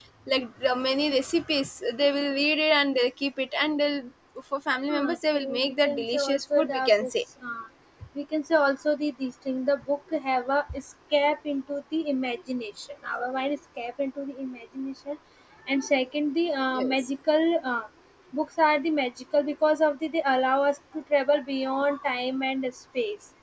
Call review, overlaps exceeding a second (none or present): present